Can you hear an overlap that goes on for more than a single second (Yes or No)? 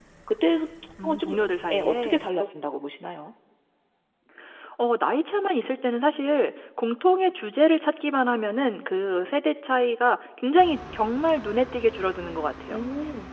Yes